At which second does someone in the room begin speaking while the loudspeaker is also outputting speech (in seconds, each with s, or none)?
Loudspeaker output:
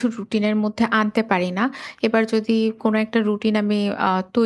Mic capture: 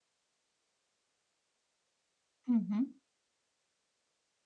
2.5 s